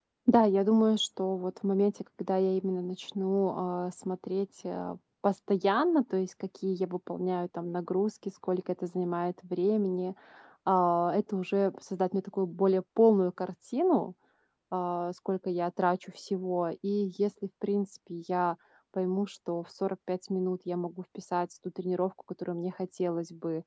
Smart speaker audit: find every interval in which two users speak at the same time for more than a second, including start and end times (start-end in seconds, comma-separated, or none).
none